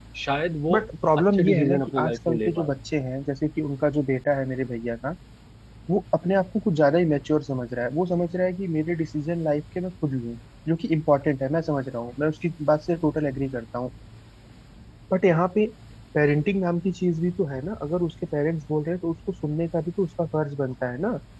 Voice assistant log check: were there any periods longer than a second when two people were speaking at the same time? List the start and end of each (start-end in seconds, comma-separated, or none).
1.2-2.7